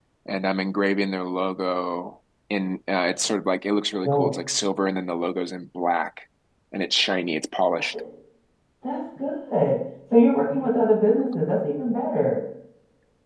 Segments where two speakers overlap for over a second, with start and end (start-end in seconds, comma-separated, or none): none